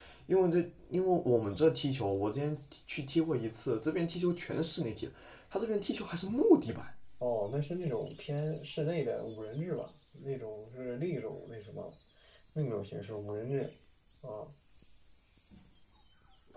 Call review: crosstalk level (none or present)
none